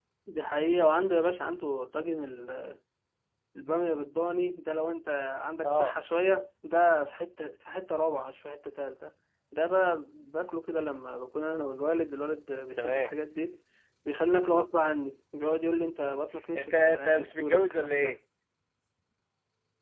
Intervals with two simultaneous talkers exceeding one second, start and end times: 16.6-18.1

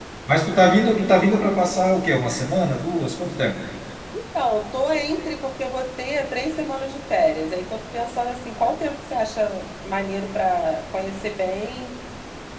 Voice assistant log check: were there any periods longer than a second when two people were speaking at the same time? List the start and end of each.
none

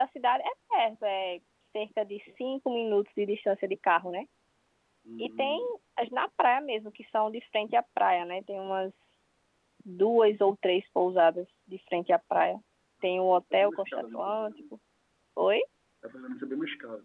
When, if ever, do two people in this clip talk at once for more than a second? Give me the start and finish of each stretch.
13.0-14.6

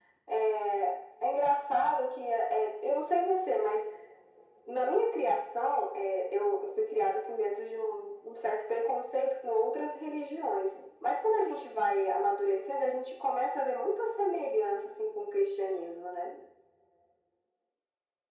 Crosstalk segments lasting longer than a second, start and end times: none

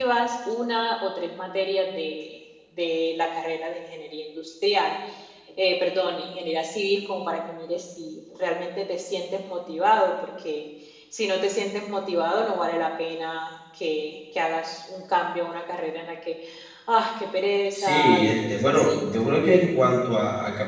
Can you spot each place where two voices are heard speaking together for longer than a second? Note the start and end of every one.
17.8-19.0

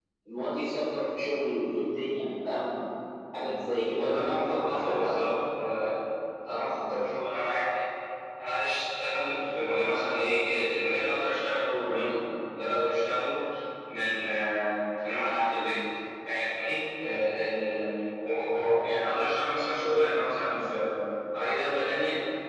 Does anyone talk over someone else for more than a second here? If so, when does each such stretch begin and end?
4.0-5.2

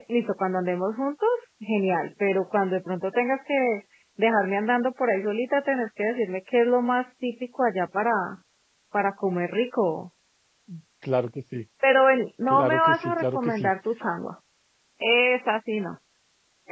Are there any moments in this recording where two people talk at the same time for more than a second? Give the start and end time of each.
12.5-13.7

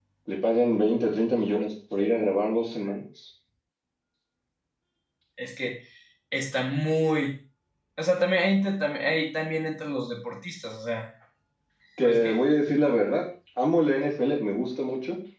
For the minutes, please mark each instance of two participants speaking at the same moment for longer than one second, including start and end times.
none

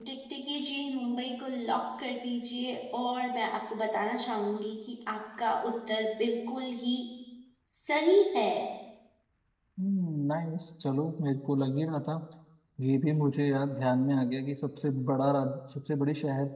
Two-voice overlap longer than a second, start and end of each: none

